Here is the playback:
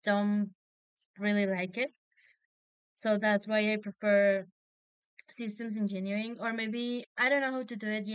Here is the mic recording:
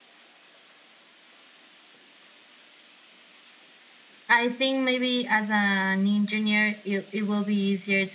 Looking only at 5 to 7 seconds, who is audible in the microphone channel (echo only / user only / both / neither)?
user only